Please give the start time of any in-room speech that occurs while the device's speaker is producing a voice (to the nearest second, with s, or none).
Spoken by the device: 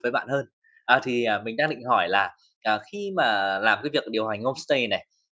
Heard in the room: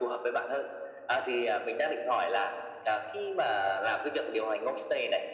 none